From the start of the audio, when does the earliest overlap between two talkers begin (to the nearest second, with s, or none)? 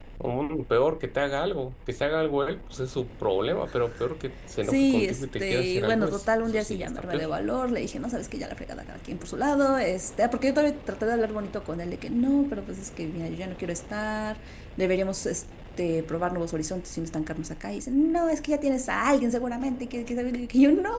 5 s